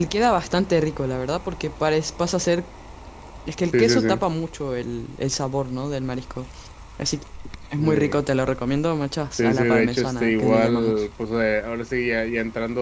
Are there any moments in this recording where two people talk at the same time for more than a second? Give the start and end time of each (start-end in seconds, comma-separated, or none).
9.4-11.0